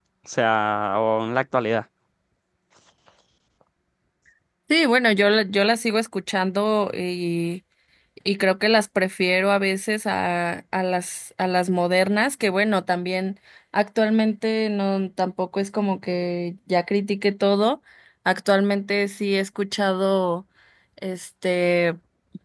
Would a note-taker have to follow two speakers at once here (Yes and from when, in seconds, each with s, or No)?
No